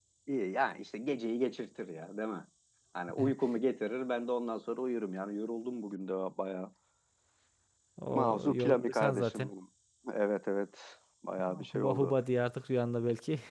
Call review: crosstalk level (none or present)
present